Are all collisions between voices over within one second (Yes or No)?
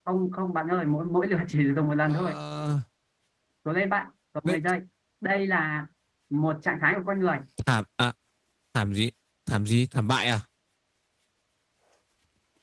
Yes